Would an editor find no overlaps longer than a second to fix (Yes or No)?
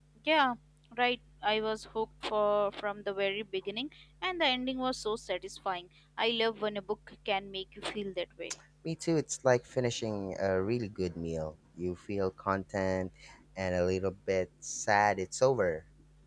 Yes